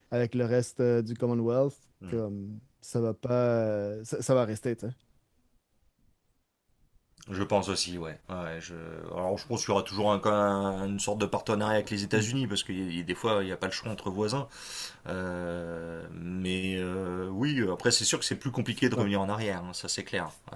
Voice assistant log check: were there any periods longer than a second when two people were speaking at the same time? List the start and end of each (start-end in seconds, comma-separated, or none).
none